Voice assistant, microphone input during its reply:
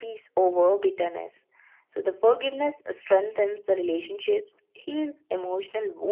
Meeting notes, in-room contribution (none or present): none